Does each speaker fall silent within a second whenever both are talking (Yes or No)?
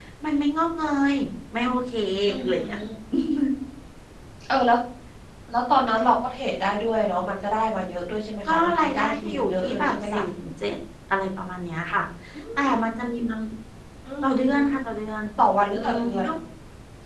No